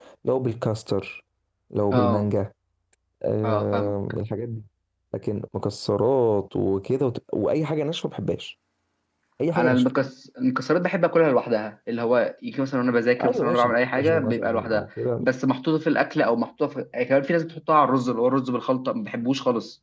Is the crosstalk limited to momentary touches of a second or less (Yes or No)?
No